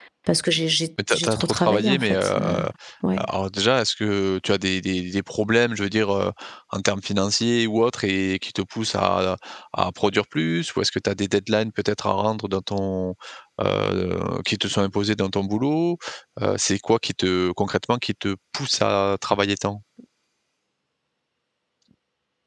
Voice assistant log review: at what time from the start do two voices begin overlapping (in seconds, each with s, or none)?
1.1 s